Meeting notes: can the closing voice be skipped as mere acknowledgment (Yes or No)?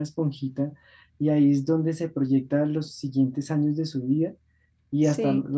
Yes